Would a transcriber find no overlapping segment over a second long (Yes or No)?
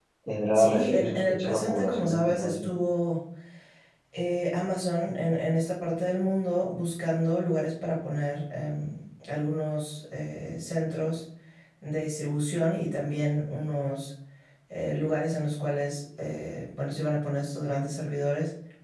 No